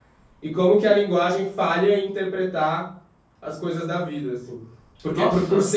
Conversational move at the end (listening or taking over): listening